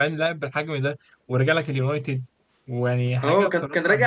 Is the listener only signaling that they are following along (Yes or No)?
No